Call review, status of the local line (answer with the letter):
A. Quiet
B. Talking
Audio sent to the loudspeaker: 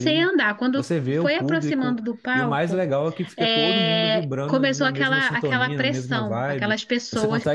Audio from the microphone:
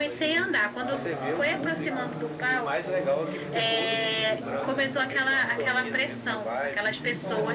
B